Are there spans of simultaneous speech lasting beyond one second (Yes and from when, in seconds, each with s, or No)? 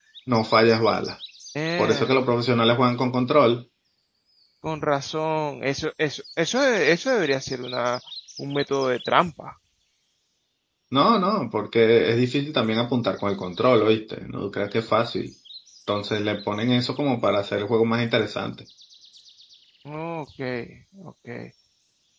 No